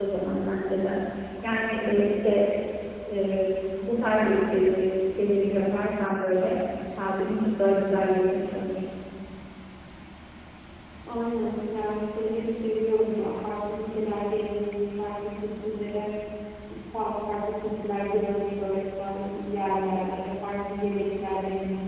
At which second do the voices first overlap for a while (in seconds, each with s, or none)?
none